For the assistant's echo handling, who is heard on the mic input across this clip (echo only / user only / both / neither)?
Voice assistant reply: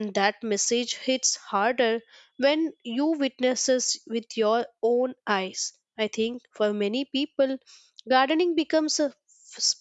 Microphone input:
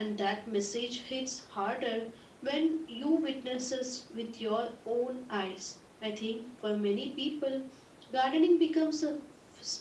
echo only